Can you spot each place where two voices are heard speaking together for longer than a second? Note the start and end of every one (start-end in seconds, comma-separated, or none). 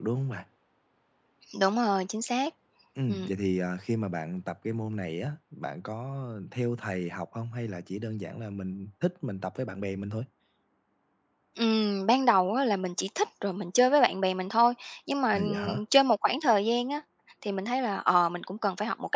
none